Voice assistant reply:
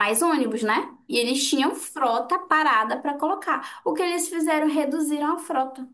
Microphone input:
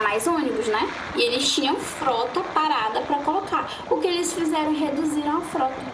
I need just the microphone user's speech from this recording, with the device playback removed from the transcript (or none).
none